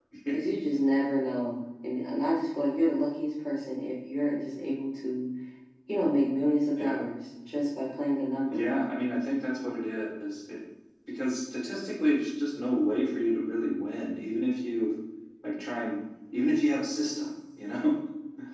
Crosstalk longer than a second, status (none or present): none